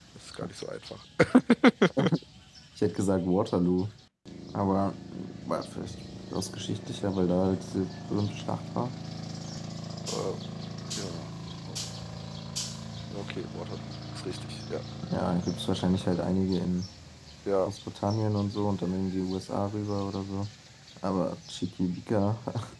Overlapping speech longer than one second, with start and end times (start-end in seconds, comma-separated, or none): none